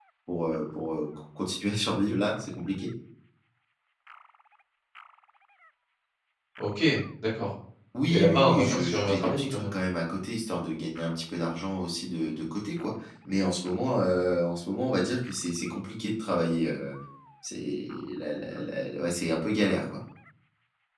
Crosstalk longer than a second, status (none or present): present